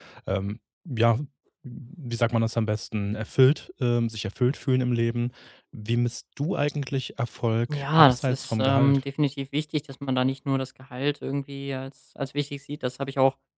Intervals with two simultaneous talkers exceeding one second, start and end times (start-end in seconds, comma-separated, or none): 7.7-9.0